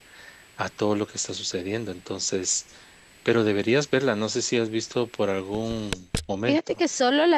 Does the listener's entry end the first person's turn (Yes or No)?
Yes